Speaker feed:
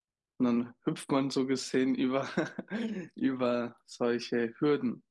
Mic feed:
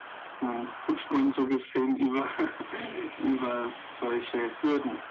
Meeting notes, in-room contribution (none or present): none